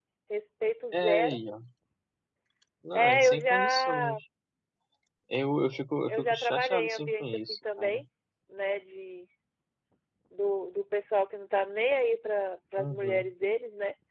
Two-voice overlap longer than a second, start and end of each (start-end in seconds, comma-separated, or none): 2.9-4.2, 6.1-8.0